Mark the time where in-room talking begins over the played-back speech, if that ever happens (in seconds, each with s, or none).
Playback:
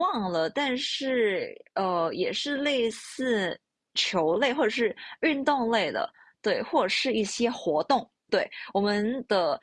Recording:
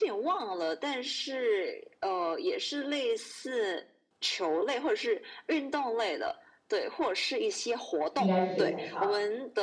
8.1 s